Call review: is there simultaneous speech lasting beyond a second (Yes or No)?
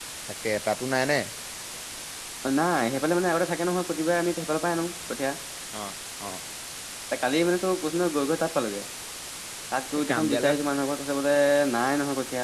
No